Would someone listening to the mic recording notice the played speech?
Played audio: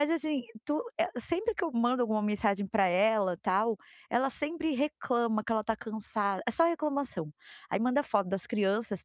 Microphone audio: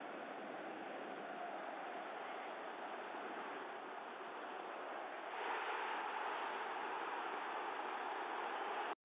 No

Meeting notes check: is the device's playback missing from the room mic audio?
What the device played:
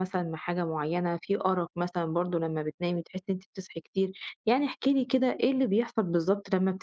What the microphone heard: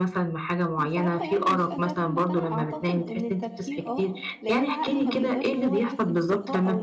No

